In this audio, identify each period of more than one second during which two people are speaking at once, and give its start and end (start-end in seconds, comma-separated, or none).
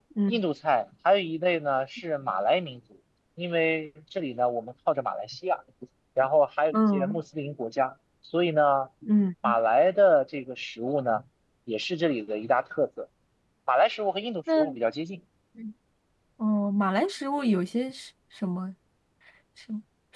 none